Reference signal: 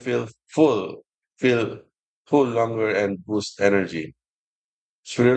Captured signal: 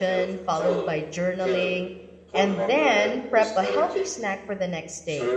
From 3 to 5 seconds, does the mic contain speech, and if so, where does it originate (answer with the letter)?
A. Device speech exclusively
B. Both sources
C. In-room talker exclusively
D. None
B